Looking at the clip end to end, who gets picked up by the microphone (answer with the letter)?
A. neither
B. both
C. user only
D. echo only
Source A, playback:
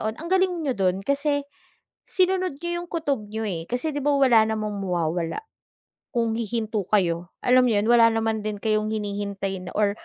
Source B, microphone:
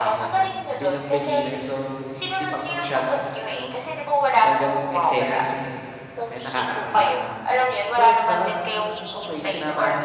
B